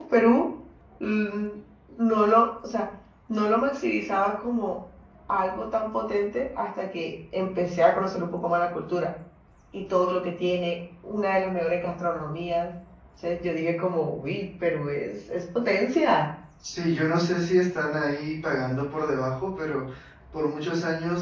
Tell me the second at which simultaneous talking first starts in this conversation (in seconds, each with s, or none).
none